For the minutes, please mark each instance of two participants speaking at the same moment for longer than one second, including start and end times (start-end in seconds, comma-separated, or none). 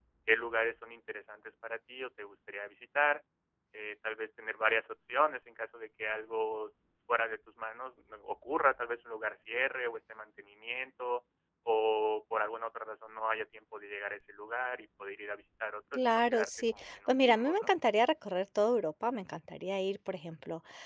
15.9-17.7